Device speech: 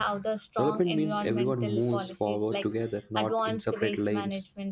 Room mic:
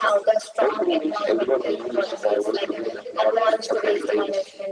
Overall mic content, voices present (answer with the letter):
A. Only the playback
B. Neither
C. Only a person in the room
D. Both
D